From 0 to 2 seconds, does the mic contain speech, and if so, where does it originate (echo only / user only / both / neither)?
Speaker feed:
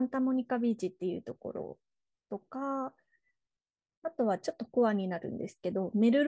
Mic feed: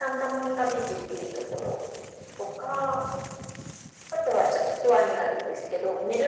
echo only